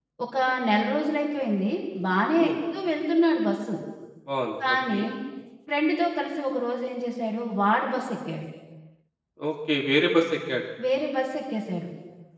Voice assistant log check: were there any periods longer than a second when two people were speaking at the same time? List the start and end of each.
none

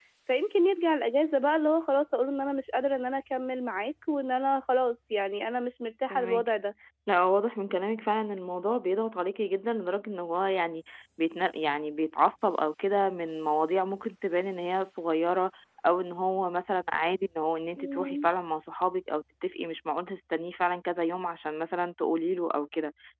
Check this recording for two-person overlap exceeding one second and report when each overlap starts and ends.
none

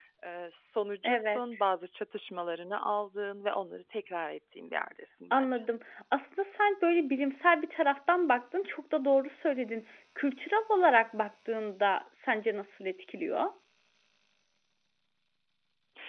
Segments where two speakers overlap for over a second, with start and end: none

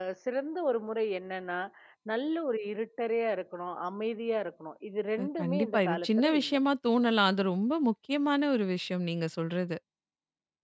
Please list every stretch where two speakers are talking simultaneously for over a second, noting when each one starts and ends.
5.2-6.5

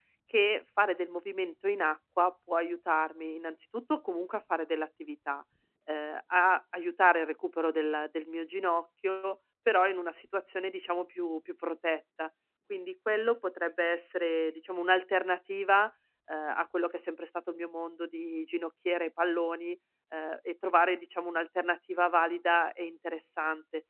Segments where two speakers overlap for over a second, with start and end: none

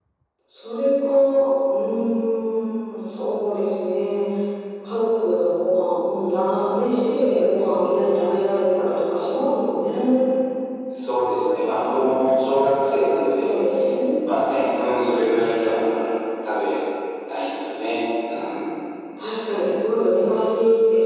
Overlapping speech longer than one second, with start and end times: none

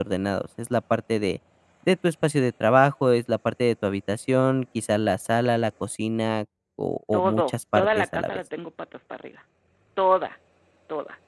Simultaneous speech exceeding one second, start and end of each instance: 7.1-8.4

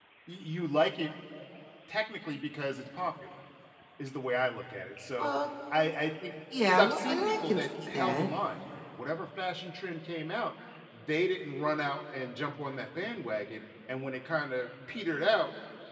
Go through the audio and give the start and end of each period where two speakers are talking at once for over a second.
6.7-8.3

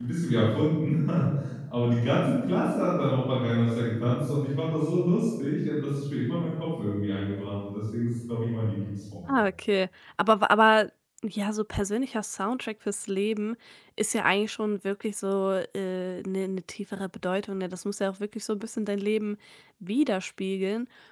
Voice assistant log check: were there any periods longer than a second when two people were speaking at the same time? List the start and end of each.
none

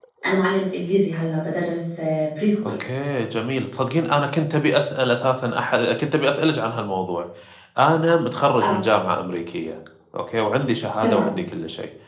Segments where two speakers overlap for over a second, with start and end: none

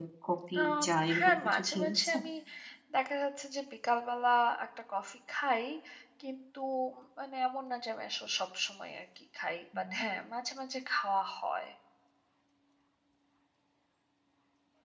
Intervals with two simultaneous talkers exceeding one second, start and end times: 0.7-2.2

